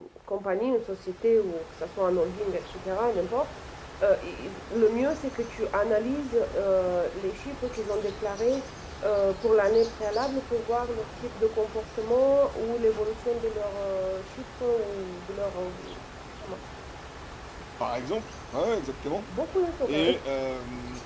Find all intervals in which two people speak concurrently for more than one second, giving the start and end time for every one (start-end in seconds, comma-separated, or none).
none